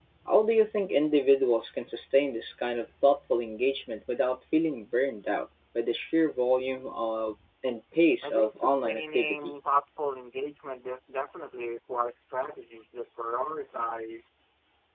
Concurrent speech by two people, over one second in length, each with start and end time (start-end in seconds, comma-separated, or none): 8.2-9.6